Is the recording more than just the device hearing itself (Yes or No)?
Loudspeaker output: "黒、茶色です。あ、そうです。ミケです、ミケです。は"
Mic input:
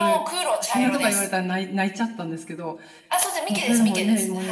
Yes